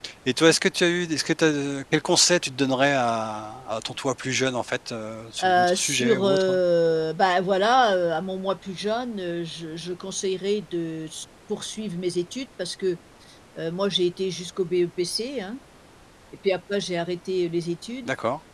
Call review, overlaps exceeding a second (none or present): present